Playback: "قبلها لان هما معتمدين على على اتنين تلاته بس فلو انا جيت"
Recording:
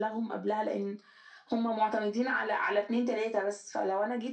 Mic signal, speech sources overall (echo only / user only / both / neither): echo only